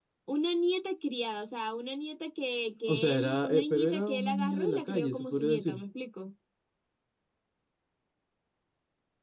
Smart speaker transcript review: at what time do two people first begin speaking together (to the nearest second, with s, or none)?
3 s